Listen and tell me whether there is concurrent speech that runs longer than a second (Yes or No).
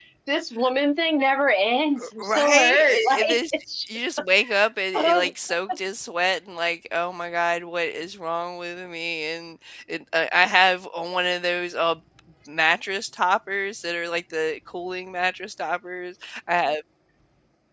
Yes